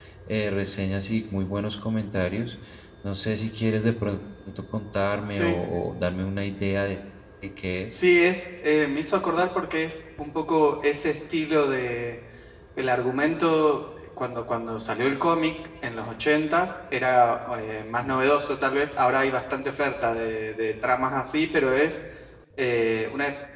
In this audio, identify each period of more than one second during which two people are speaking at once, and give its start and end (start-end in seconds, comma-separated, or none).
none